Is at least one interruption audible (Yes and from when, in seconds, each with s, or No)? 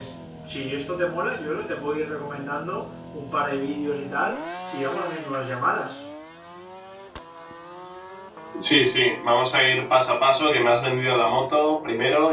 No